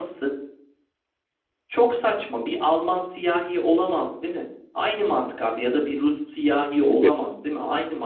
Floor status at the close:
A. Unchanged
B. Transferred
A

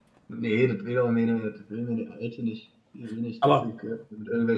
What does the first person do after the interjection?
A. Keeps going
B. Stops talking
A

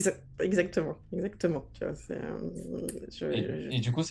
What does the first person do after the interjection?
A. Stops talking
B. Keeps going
A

